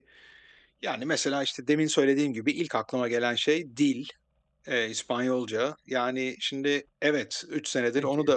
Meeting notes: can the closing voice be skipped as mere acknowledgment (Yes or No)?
Yes